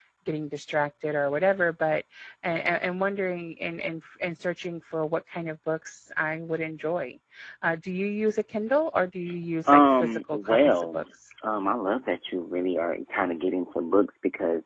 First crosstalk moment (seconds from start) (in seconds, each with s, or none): 9.7 s